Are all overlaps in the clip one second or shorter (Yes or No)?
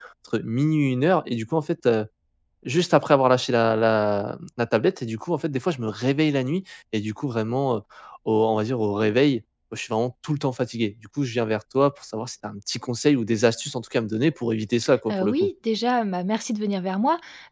Yes